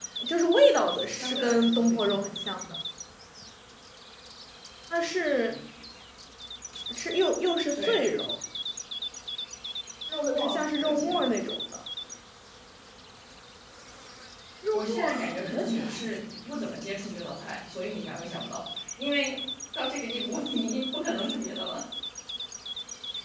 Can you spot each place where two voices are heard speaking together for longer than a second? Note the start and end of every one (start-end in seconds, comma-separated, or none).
1.1-2.6, 10.2-11.5, 14.7-16.1